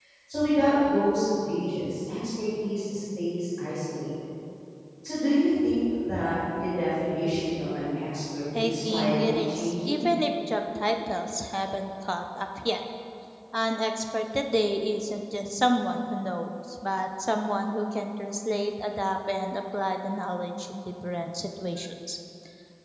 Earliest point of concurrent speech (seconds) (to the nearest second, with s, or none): 9 s